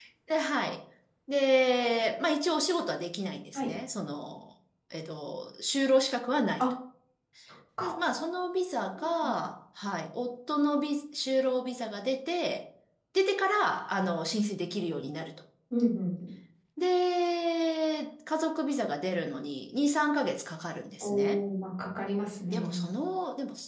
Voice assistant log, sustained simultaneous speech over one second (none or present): none